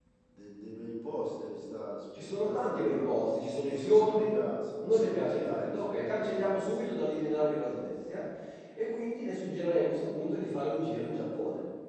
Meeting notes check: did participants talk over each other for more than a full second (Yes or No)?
Yes